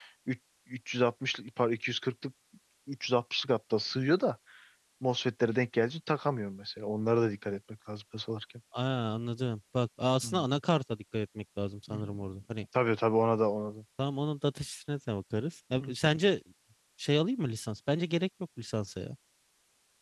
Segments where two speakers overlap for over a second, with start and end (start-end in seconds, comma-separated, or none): none